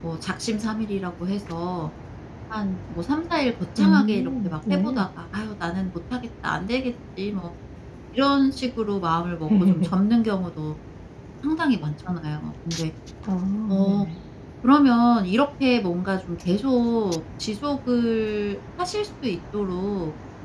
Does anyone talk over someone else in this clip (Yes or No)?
Yes